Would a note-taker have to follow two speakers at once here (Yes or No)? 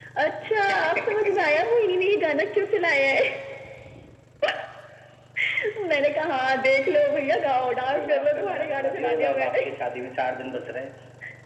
Yes